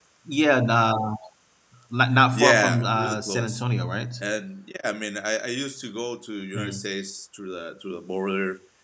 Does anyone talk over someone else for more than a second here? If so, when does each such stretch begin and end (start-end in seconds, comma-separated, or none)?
2.3-3.6